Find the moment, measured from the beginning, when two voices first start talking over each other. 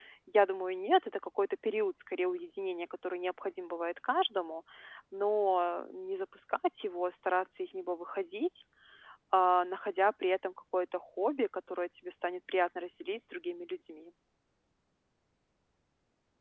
none

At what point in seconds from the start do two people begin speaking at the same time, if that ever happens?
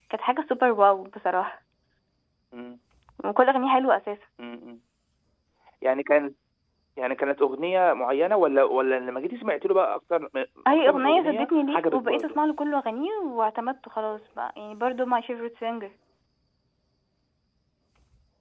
11 s

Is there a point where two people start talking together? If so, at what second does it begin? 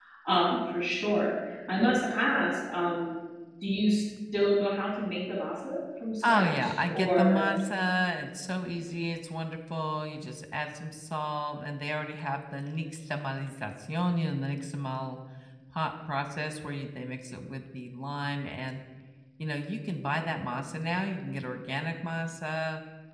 6 s

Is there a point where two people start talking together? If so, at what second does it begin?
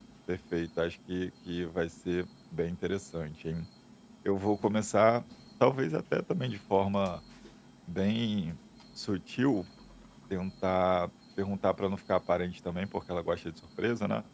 none

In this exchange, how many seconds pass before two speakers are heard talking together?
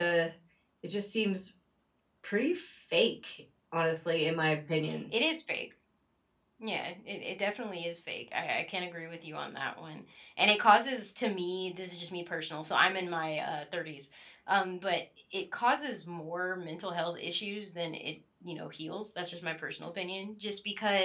none

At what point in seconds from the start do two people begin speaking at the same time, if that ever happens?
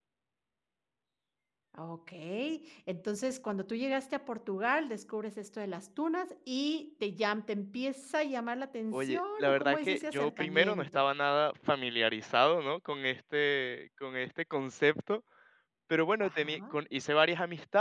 9 s

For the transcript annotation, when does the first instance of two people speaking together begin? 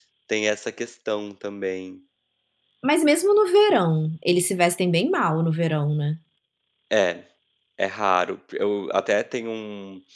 none

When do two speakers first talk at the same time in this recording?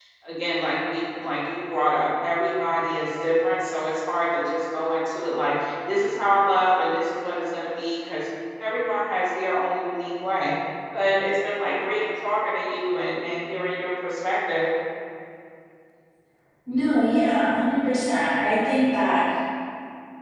none

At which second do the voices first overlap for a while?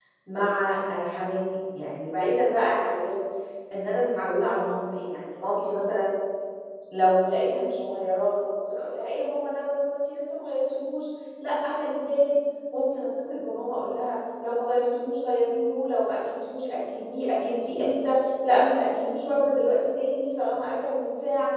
none

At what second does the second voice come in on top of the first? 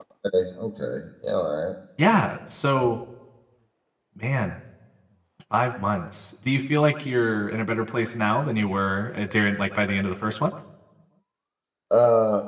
none

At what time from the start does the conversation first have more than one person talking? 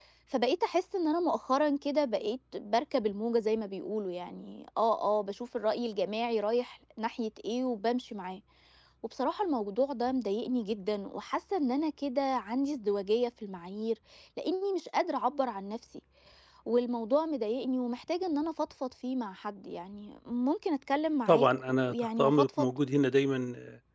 21 s

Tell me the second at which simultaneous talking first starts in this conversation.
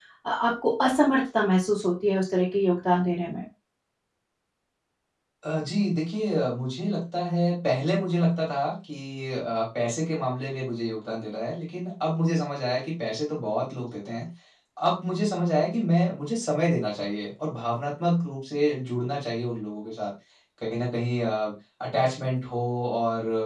none

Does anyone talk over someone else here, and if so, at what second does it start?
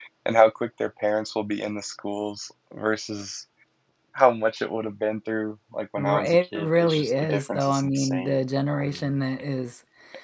6 s

